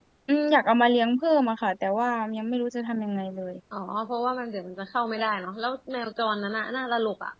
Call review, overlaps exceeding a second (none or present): none